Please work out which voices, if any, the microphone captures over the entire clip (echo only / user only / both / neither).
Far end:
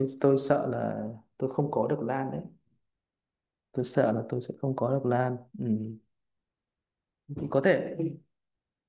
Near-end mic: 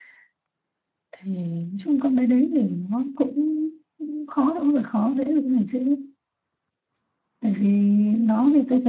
user only